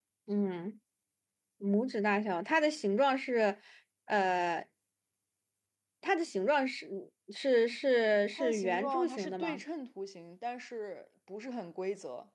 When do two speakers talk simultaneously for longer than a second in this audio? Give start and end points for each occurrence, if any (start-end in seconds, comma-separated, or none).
8.3-9.6